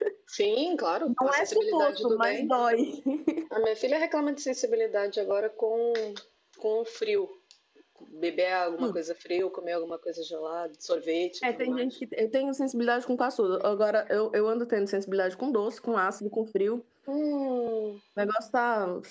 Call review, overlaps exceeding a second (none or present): present